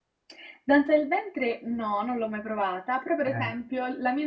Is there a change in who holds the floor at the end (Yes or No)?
No